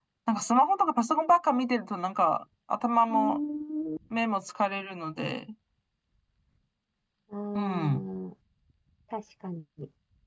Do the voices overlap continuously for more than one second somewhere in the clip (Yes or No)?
No